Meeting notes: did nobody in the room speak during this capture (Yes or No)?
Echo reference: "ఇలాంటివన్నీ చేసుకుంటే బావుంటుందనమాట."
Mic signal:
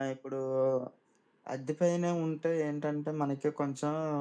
No